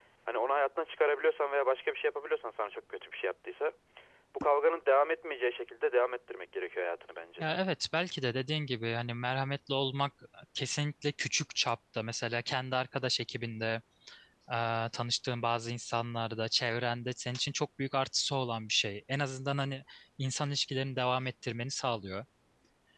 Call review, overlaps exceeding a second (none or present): none